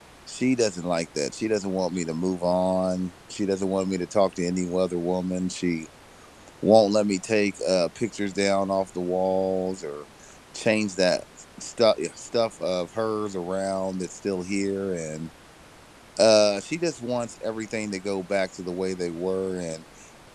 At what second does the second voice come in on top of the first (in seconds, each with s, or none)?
none